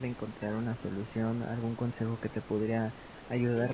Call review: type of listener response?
listening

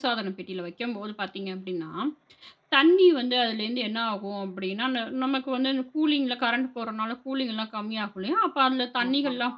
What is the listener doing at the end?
listening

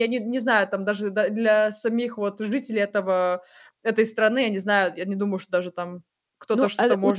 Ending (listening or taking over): taking over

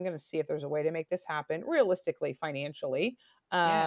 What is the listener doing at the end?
listening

